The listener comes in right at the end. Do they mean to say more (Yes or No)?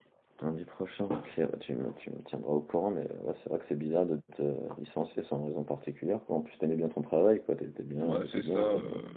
Yes